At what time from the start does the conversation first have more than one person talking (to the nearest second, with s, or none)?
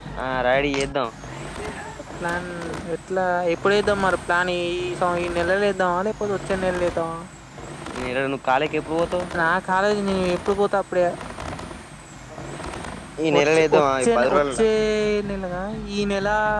13 s